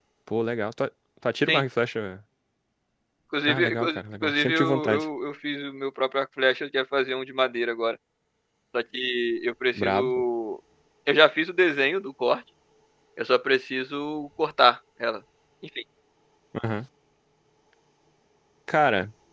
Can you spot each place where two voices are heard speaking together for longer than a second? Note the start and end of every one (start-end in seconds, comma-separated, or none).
3.5-5.0